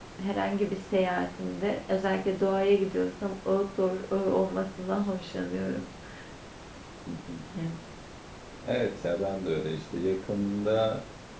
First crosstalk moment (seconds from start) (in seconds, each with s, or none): none